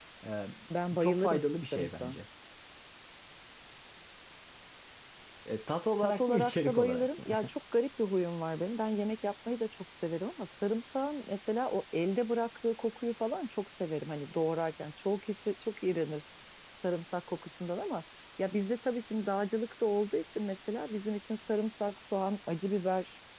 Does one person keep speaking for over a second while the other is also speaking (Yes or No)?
Yes